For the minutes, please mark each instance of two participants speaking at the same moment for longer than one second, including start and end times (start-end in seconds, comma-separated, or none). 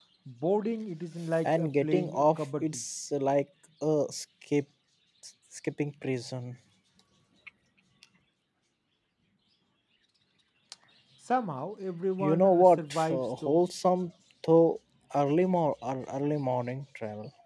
1.4-2.8, 12.2-13.6